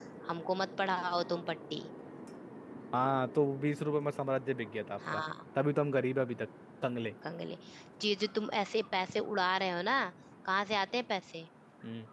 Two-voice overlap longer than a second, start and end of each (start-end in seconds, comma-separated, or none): none